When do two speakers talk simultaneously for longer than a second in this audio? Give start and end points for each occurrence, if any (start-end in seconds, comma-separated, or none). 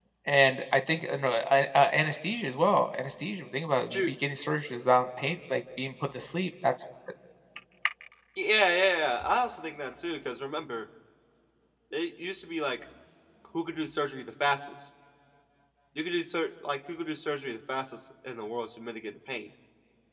none